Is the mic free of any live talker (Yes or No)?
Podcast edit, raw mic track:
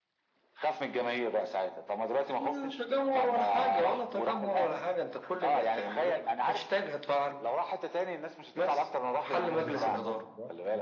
No